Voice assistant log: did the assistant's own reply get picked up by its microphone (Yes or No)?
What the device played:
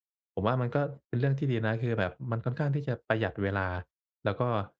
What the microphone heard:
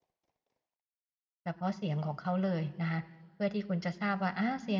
No